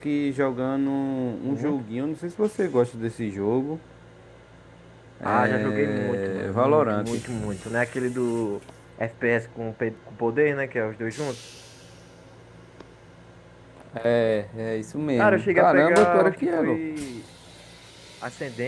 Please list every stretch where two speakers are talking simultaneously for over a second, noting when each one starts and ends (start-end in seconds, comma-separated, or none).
5.2-7.2, 15.2-16.8